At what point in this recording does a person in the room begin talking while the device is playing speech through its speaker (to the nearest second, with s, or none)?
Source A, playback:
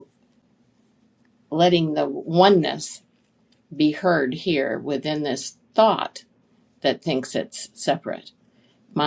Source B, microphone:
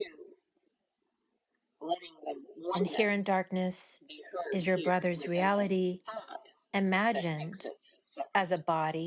3 s